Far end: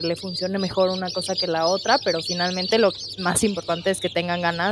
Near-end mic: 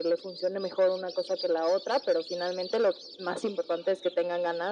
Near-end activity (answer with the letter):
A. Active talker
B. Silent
B